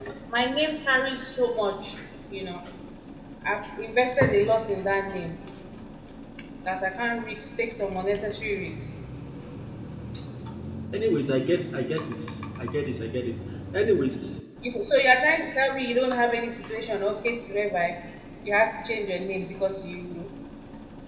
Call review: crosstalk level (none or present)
none